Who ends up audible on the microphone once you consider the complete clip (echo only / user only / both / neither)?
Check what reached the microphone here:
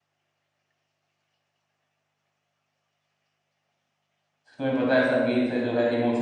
user only